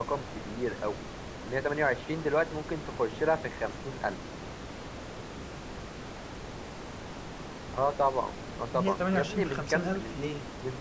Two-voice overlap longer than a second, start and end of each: 8.7-10.2

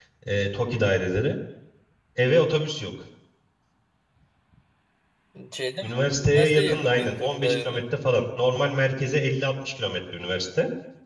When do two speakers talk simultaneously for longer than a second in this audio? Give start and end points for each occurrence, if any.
5.8-7.8

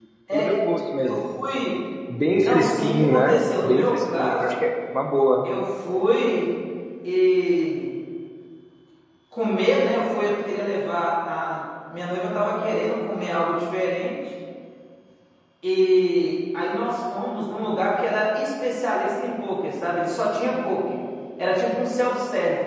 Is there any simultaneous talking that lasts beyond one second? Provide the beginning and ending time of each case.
2.4-4.4

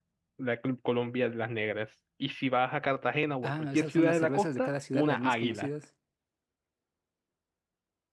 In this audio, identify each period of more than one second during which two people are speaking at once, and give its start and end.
3.4-5.7

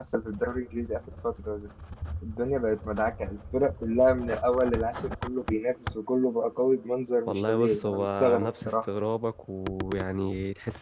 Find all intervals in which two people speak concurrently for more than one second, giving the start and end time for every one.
7.3-8.9

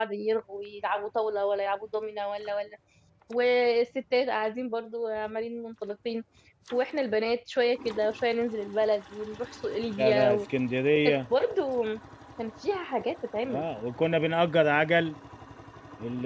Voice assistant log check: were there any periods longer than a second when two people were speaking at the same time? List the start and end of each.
none

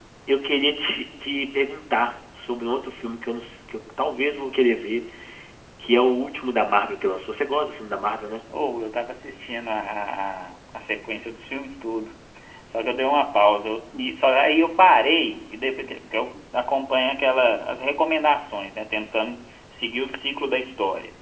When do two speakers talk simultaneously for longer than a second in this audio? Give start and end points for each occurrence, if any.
none

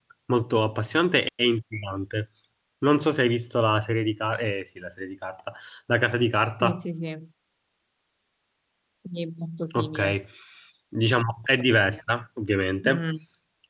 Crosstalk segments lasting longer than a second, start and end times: none

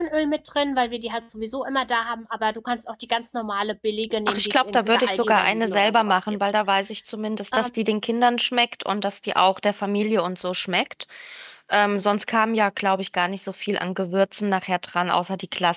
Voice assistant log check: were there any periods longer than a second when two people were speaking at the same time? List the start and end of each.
4.3-6.4

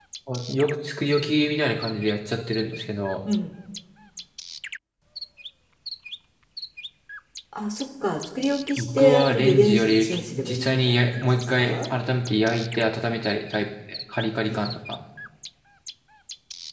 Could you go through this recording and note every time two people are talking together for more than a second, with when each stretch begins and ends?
8.8-11.8

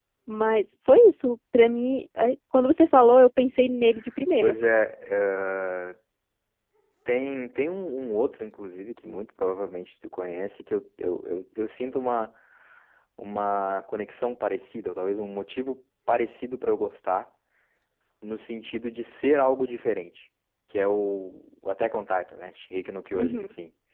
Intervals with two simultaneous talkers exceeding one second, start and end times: none

